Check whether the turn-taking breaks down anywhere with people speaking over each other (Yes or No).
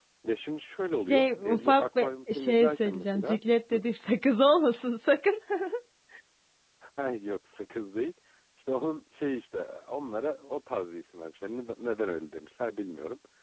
Yes